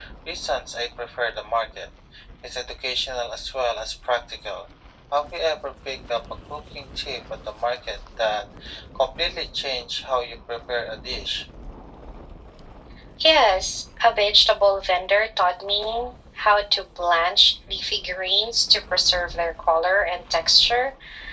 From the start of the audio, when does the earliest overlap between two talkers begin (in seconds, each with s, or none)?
none